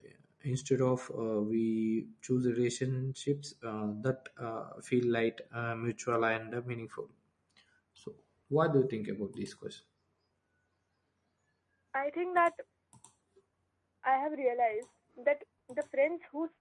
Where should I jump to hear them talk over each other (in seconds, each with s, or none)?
none